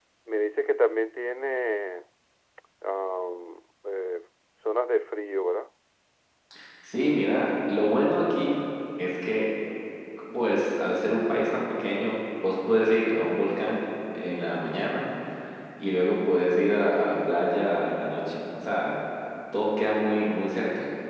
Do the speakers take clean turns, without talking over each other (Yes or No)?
Yes